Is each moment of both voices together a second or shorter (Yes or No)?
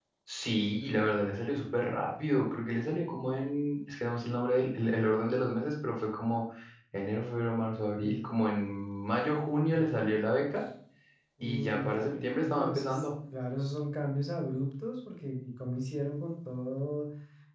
No